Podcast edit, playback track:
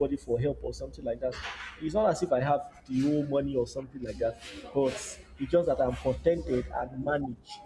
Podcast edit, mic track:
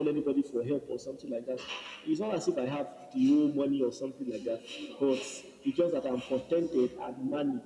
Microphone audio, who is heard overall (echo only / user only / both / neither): echo only